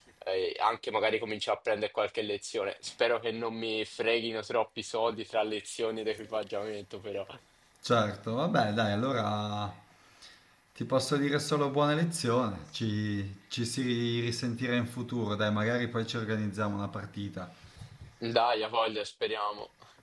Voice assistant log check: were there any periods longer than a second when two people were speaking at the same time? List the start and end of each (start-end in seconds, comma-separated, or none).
none